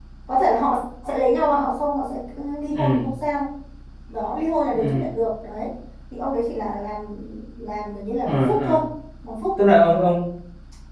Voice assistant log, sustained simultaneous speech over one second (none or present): none